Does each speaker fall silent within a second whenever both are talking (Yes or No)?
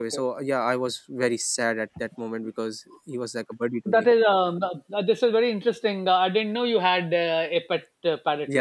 Yes